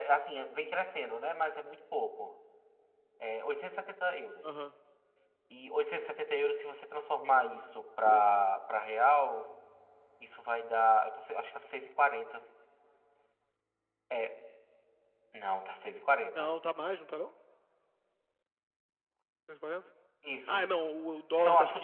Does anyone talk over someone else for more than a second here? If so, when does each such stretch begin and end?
none

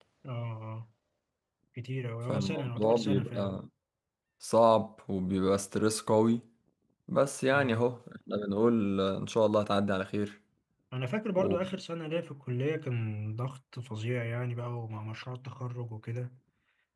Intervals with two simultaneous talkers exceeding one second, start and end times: 2.3-3.5

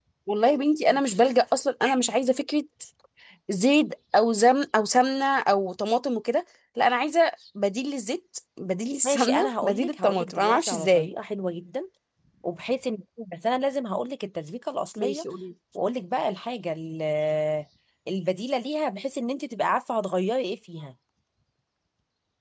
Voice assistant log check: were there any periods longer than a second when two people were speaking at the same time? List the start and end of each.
9.0-11.1

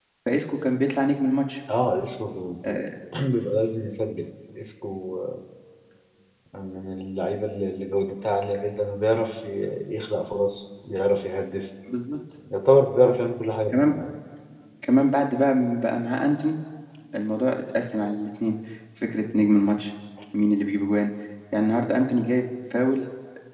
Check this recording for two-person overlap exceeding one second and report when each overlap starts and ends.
none

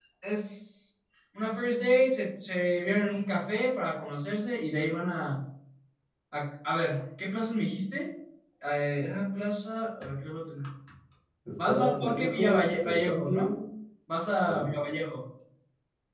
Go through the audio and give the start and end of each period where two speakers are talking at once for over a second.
11.6-13.5

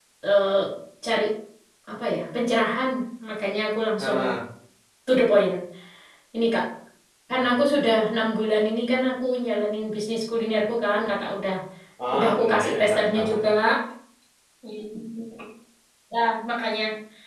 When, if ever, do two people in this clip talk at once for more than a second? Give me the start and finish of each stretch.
12.1-13.4

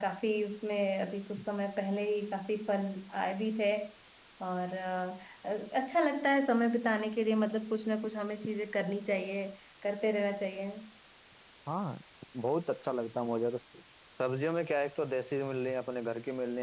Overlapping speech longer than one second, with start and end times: none

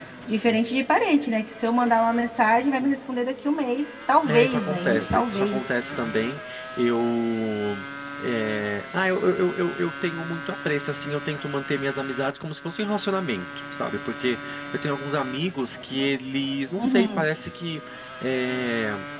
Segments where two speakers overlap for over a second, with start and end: 4.2-5.6

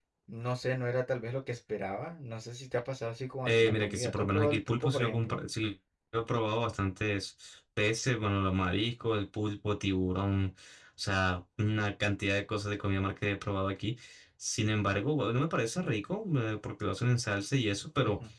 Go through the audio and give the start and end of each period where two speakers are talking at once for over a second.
3.5-5.4

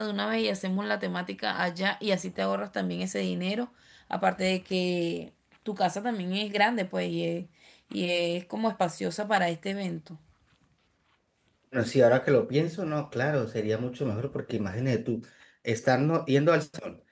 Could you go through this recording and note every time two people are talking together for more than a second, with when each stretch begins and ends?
none

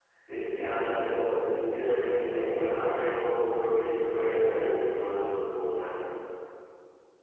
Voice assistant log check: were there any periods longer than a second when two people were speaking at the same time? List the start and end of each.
1.8-3.1

